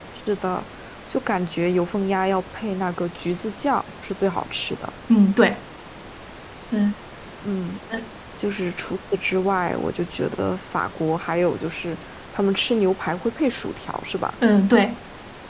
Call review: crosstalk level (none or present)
none